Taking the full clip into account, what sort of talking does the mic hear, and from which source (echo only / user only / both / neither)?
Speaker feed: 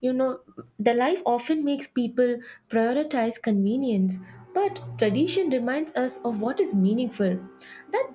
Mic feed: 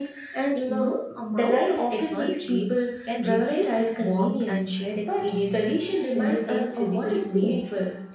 both